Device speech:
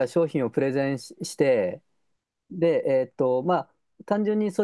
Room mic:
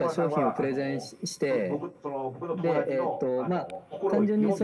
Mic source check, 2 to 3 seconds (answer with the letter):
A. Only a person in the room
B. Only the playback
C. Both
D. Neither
C